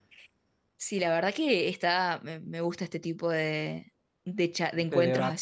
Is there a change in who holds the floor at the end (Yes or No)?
No